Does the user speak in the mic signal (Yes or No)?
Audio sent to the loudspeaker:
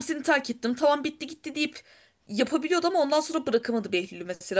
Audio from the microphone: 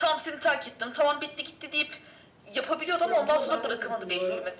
Yes